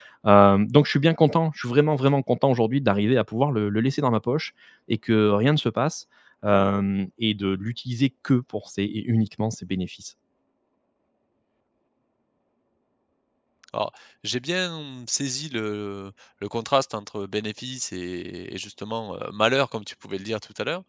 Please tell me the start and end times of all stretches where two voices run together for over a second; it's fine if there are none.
none

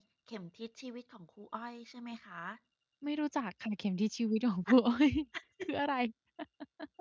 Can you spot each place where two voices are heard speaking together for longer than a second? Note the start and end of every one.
none

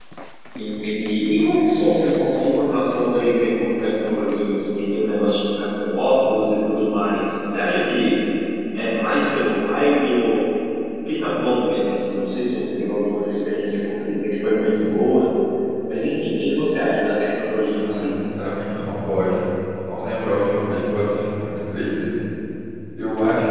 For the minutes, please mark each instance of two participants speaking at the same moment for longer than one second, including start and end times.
none

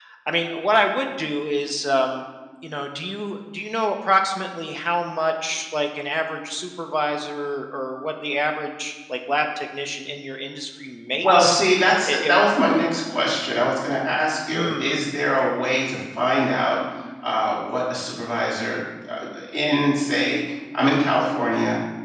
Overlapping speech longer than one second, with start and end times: none

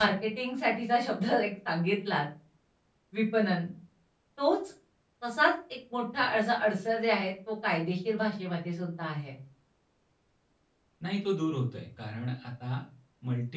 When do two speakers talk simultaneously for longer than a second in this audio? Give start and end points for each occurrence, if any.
none

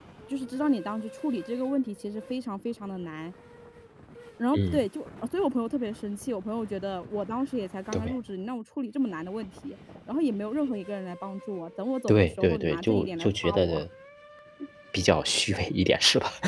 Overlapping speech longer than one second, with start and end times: 12.1-13.8

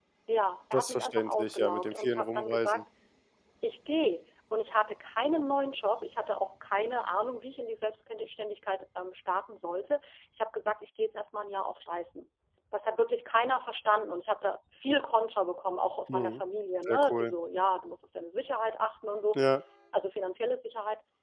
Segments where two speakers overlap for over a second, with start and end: 0.7-2.8

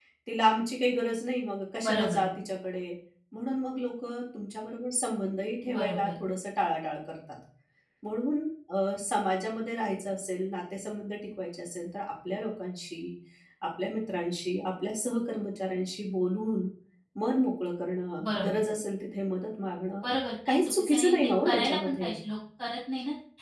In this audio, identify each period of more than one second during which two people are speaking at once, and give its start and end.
20.5-22.1

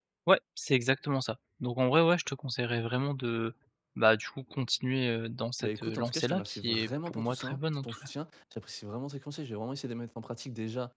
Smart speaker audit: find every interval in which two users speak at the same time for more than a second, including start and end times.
5.6-8.1

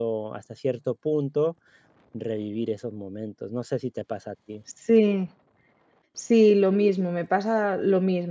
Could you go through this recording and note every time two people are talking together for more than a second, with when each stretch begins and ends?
none

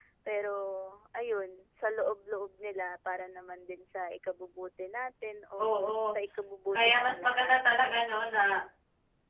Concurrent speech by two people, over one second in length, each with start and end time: 6.7-8.1

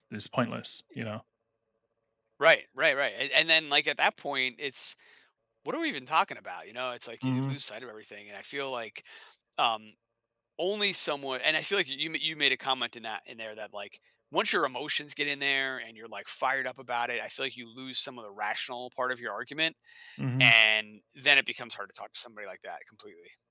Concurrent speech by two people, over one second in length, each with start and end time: none

